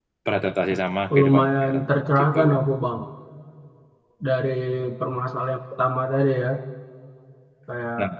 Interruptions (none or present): present